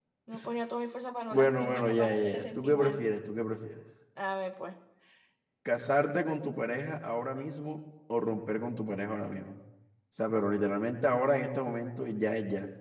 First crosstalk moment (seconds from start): 1.3 s

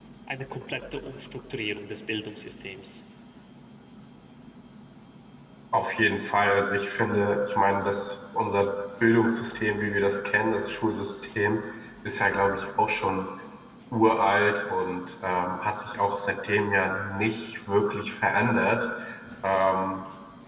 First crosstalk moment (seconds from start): none

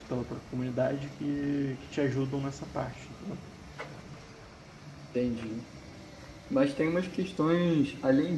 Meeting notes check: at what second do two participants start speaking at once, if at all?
none

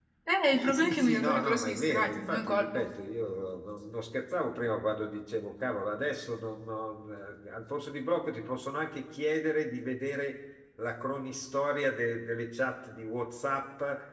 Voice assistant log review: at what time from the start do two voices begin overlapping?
0.6 s

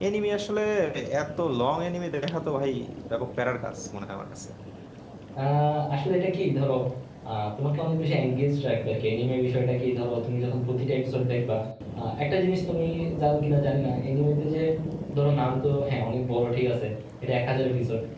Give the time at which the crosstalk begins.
none

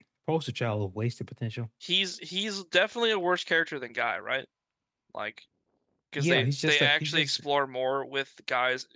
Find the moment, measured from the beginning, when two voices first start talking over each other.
6.2 s

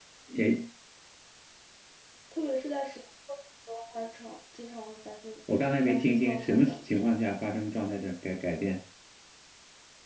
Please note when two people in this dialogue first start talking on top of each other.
5.9 s

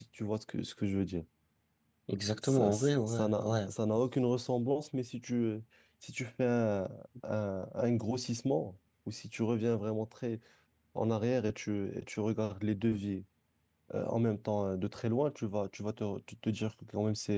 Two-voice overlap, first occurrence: 2.4 s

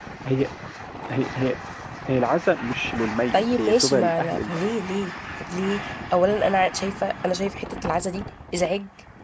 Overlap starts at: 3.3 s

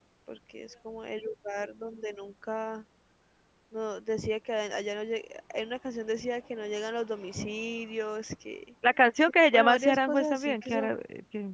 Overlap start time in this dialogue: 9.5 s

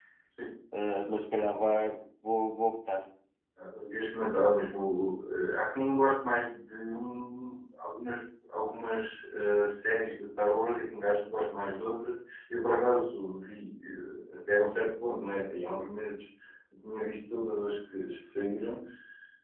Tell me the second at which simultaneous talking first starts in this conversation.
none

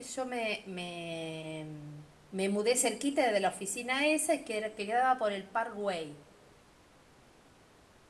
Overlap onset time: none

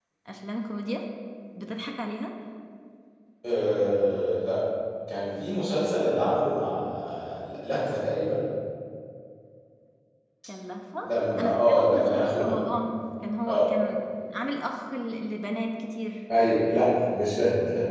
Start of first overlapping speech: 11.4 s

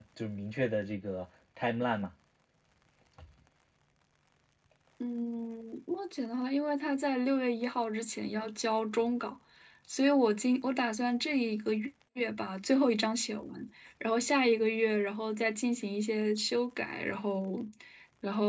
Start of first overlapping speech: none

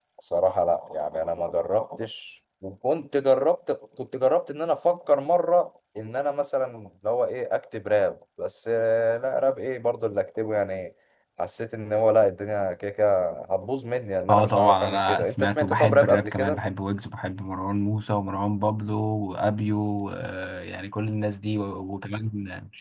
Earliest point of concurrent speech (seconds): 14.3 s

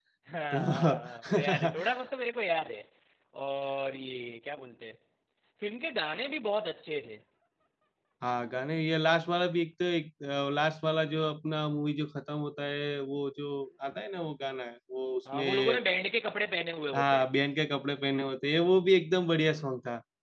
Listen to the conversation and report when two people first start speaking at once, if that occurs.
0.6 s

